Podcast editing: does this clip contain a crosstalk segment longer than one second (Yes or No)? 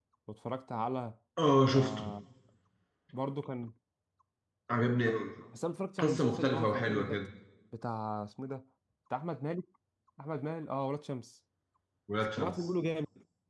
Yes